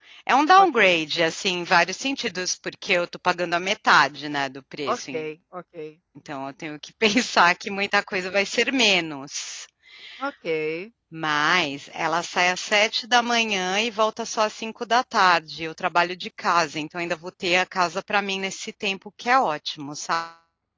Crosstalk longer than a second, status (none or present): none